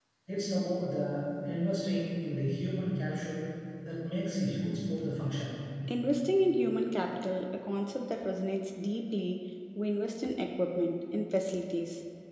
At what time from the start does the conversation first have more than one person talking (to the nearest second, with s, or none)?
none